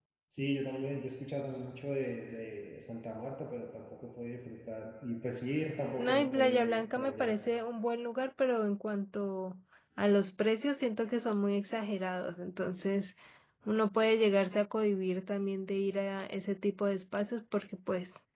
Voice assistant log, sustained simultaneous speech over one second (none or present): present